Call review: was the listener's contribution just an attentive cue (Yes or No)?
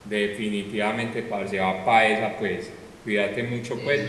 Yes